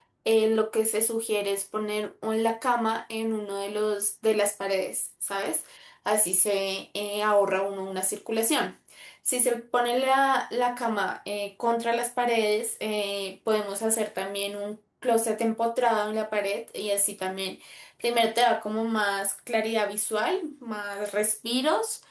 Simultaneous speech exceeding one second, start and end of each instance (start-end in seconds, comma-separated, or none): none